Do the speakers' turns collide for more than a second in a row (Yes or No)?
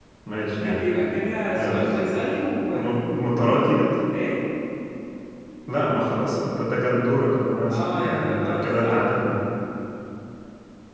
Yes